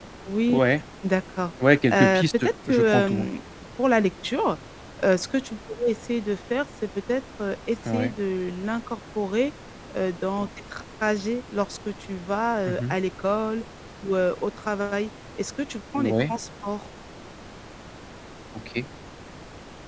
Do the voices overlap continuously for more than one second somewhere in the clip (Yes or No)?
Yes